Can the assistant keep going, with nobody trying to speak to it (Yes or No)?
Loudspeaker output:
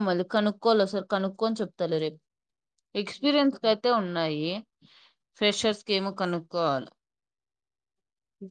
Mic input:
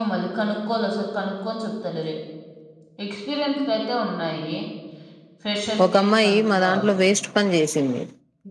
No